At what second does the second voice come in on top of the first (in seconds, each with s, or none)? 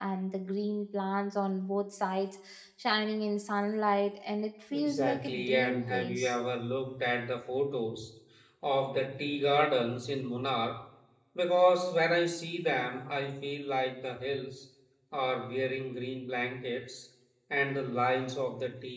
4.7 s